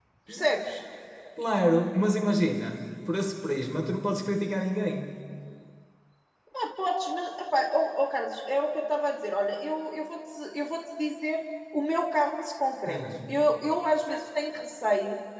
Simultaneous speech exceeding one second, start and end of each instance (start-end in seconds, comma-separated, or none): none